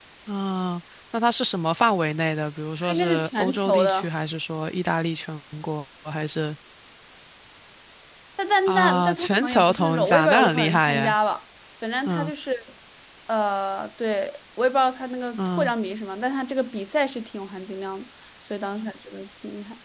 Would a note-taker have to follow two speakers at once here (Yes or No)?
Yes